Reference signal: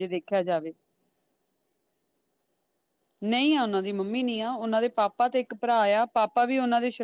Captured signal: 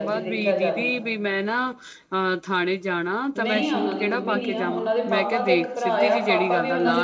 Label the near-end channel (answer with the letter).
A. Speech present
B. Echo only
A